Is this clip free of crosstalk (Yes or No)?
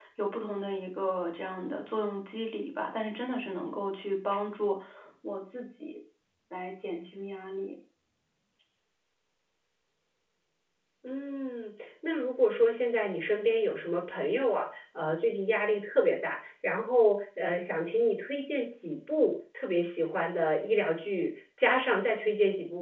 Yes